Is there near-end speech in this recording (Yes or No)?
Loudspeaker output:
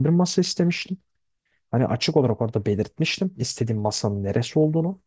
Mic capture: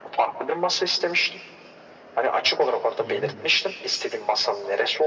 Yes